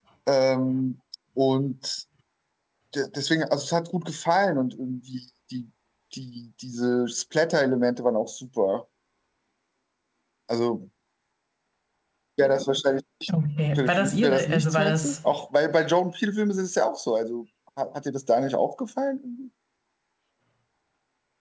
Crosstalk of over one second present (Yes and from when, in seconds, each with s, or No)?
Yes, from 13.8 s